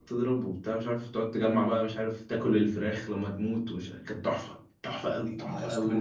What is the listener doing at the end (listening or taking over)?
taking over